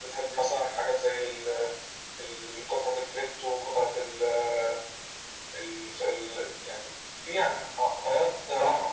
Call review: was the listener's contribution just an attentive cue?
No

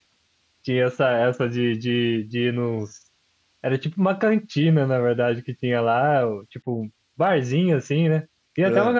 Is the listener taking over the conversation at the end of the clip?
No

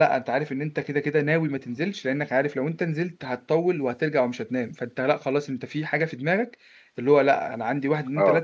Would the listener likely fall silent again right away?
Yes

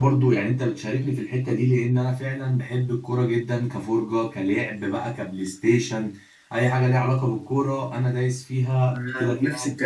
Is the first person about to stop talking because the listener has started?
Yes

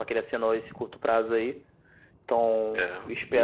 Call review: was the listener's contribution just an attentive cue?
No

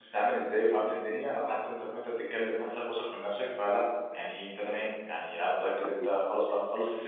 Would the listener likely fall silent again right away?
Yes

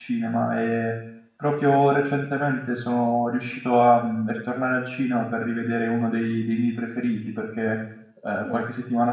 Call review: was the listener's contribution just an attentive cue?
Yes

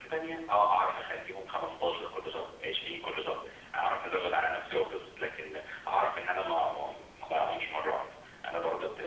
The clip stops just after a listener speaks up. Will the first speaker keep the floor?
No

